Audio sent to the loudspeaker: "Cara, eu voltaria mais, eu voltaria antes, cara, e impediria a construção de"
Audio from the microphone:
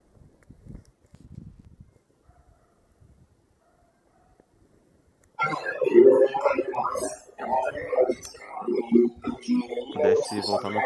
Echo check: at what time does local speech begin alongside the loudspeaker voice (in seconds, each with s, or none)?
9.9 s